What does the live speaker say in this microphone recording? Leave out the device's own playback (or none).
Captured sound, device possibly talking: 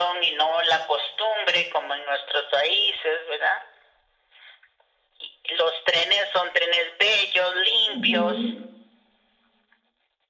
Ujú,